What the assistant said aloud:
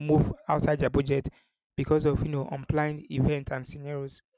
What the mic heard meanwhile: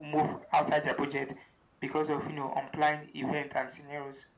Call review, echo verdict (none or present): present